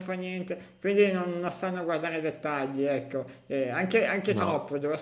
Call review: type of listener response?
listening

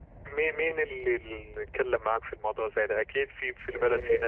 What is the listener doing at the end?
taking over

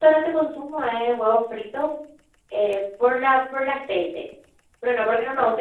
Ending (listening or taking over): listening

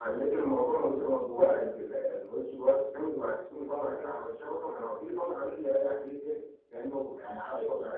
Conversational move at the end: taking over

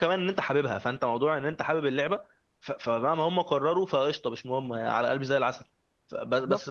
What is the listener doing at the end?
taking over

